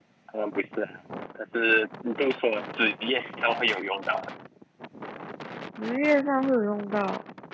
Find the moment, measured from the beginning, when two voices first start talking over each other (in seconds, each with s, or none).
none